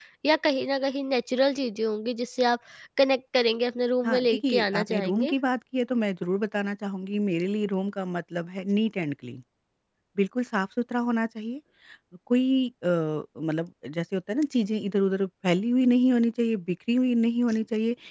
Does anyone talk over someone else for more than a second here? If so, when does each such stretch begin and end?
4.0-5.3

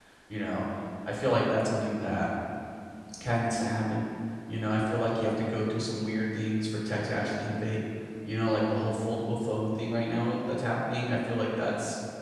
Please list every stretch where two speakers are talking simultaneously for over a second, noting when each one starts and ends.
none

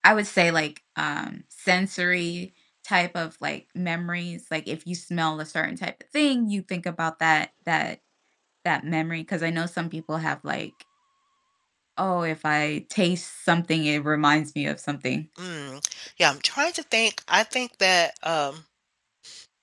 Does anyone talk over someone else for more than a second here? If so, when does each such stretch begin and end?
none

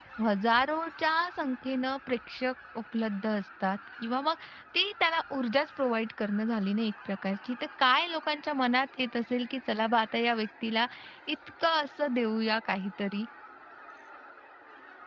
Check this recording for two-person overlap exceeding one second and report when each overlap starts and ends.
none

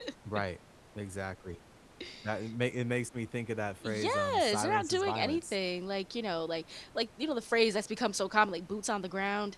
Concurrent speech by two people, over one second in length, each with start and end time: 3.9-5.6

